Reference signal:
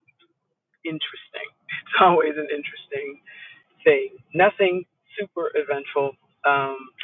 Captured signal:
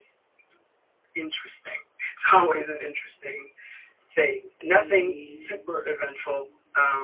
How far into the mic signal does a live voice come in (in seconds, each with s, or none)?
4.6 s